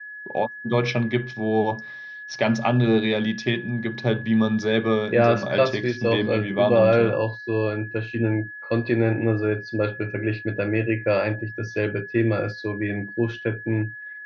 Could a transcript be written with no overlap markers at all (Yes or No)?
No